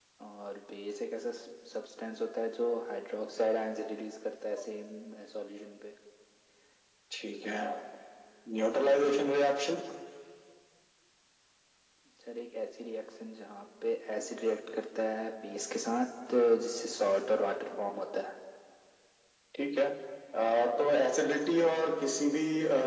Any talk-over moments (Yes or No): No